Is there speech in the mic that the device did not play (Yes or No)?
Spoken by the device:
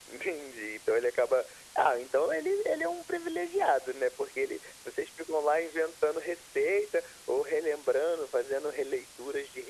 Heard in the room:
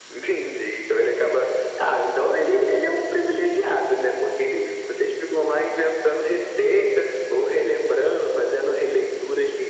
No